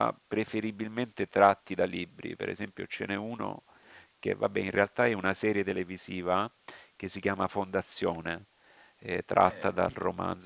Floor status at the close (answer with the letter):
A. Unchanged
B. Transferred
A